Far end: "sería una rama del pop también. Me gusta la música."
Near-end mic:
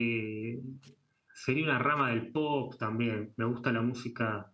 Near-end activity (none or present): none